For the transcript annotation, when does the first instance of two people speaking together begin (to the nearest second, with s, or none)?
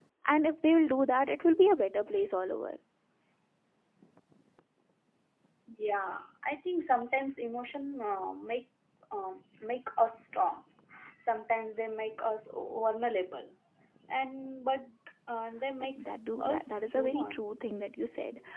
16 s